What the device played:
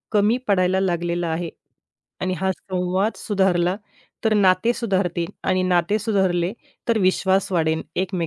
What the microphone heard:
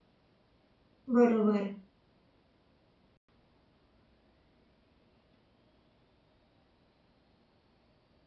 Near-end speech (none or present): present